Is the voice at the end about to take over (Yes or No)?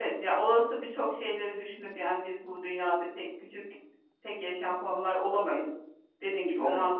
No